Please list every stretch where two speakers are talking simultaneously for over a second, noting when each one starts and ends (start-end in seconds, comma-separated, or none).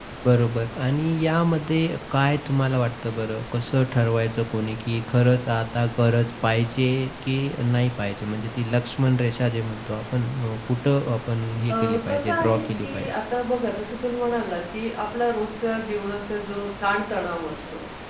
11.7-13.1